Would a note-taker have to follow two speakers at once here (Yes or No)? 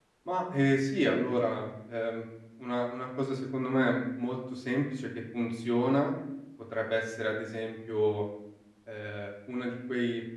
No